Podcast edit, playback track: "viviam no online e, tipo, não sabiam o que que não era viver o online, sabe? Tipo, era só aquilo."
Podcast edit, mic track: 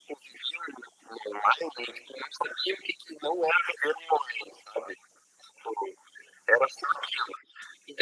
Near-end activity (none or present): none